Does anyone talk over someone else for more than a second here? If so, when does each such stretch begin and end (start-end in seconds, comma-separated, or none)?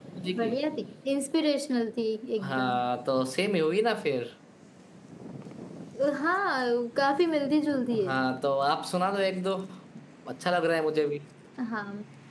none